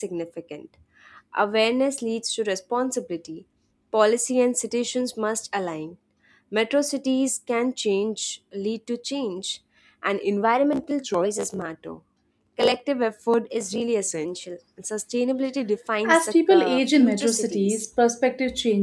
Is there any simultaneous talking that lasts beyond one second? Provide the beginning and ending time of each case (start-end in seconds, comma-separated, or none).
16.0-17.8